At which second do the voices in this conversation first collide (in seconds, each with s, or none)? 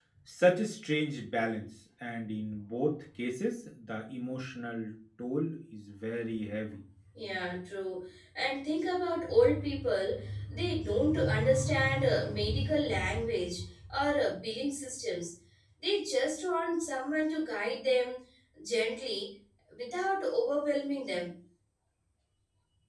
none